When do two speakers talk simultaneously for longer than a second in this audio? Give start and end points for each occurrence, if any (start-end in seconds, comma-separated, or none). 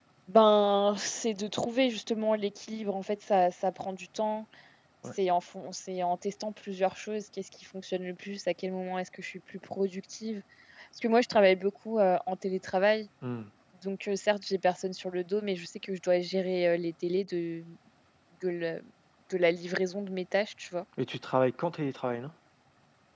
none